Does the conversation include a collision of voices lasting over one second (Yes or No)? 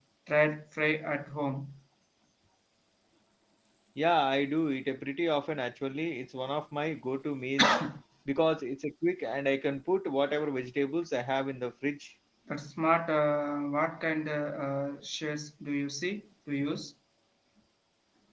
No